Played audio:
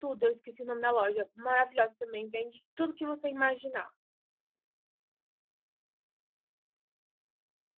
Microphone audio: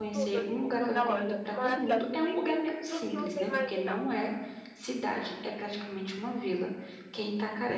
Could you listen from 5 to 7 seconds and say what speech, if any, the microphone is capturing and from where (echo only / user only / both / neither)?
user only